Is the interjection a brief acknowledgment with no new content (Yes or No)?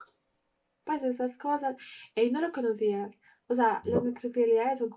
Yes